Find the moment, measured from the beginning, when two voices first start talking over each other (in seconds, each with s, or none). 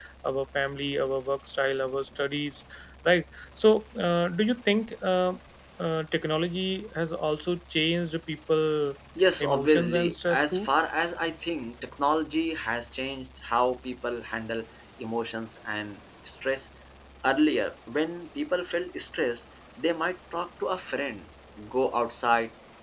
9.4 s